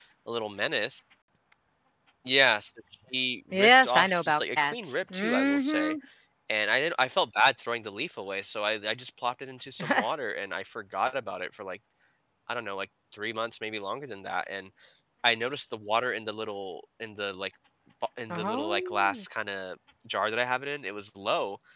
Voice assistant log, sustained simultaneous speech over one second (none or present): present